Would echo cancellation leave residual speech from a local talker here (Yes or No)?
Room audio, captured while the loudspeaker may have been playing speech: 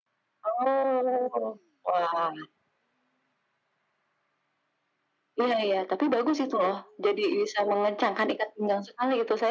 No